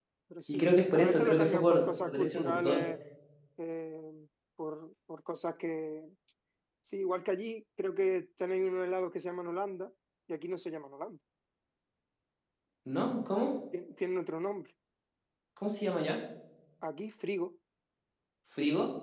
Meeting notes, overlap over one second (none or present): present